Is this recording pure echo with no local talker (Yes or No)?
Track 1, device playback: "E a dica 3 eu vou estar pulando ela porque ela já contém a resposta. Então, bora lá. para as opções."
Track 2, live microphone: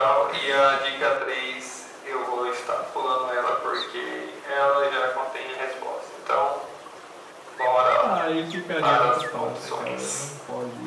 No